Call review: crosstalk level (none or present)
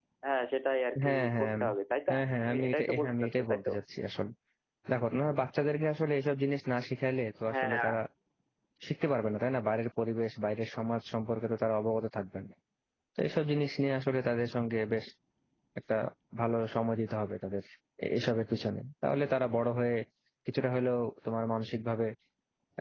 present